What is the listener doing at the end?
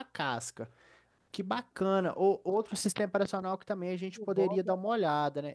listening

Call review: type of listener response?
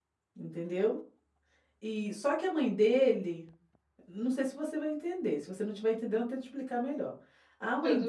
listening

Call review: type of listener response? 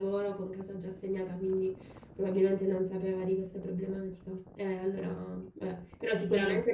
listening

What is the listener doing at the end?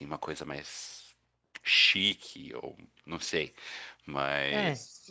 taking over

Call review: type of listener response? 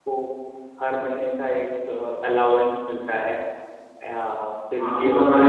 taking over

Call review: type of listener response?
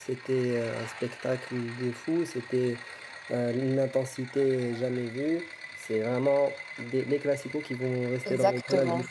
taking over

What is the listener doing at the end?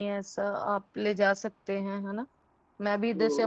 taking over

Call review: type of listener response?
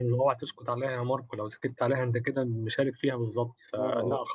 listening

